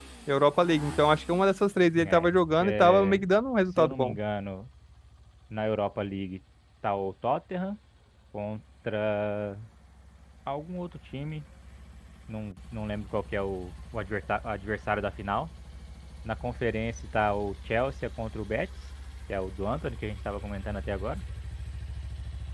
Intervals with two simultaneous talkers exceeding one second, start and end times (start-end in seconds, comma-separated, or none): 2.0-3.2